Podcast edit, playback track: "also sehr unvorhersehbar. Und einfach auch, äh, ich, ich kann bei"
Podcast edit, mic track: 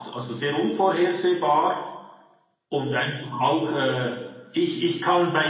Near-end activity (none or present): none